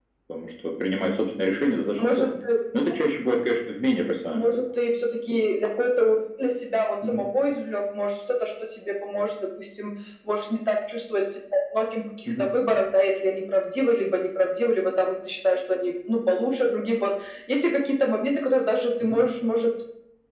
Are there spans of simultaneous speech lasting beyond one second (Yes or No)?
No